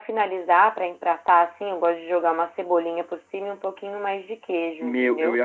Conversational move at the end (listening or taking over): taking over